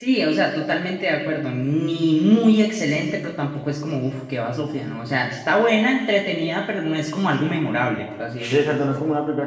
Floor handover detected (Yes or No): Yes